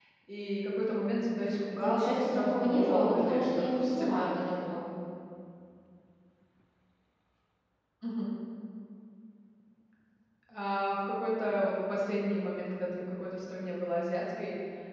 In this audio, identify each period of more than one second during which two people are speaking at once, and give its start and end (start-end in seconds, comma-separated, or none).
1.7-4.2